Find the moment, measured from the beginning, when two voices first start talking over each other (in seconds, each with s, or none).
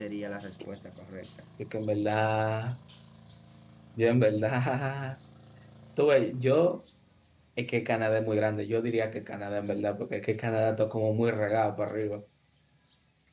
none